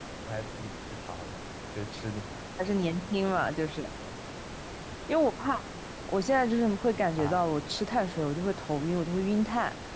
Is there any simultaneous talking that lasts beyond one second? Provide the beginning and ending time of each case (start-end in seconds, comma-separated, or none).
none